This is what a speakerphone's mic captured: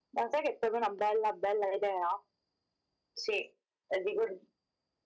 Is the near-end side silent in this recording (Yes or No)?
Yes